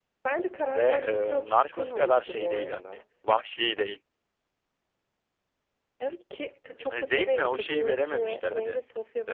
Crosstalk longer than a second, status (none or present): present